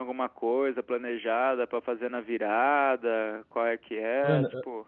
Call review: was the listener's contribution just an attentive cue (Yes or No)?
No